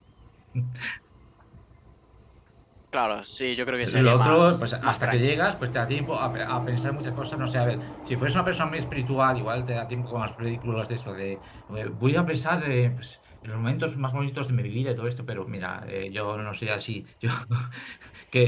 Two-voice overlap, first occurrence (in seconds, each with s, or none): 3.8 s